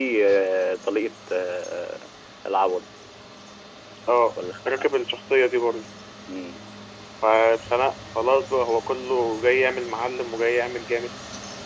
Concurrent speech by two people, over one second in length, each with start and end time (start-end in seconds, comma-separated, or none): none